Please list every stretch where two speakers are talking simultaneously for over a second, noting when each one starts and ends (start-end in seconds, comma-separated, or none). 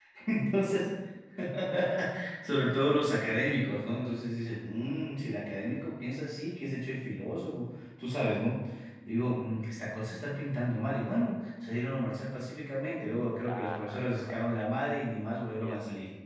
13.4-14.7